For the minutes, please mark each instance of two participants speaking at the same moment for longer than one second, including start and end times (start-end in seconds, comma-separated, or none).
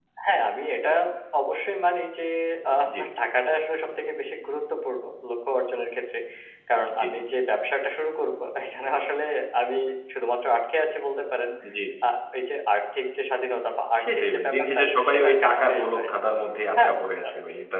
14.0-16.1